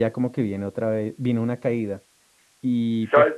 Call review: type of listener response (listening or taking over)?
listening